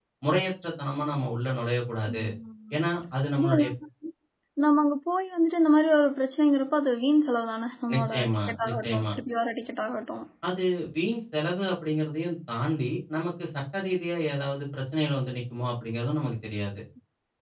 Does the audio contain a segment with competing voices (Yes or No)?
Yes